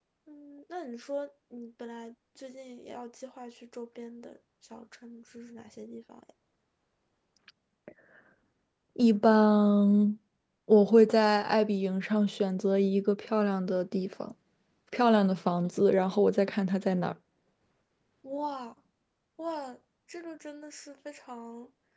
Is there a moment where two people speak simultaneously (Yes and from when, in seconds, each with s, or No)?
No